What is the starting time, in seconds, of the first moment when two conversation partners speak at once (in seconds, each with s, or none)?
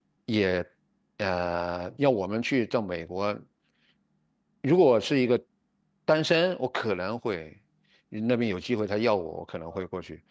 none